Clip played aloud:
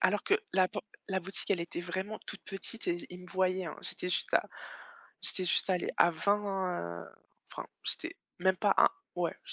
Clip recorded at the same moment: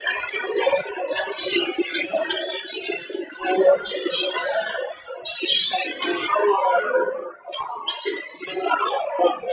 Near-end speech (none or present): none